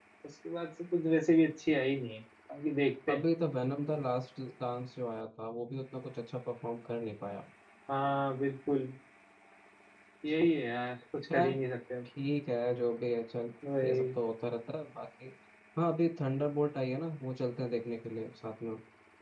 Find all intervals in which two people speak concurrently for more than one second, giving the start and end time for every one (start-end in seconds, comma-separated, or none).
none